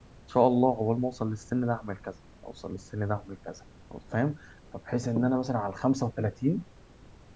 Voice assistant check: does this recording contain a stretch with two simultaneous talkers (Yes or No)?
No